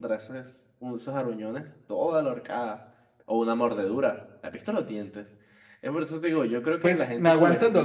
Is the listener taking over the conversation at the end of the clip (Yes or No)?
Yes